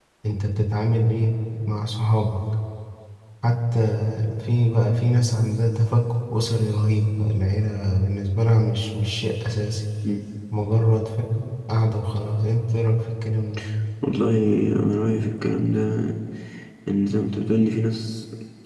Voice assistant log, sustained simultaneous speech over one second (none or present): none